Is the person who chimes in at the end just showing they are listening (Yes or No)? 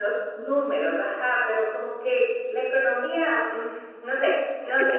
No